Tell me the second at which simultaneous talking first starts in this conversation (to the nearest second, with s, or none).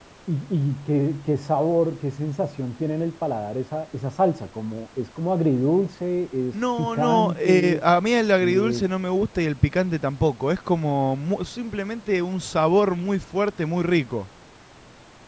7 s